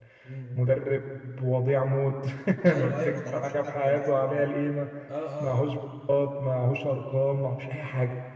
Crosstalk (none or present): present